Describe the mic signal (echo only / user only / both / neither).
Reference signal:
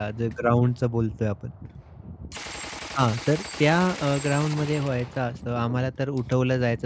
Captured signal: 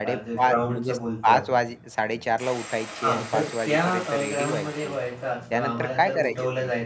both